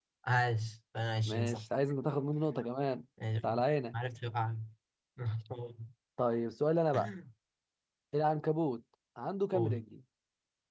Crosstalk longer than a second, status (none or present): none